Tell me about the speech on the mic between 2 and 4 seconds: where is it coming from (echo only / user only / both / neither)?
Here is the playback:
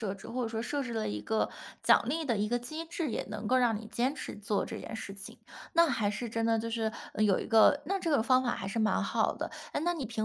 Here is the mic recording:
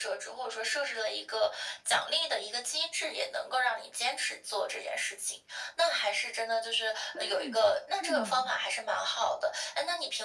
echo only